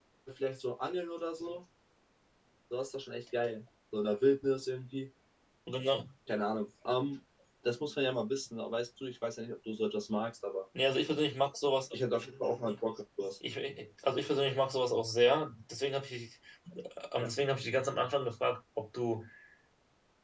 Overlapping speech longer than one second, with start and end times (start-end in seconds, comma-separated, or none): none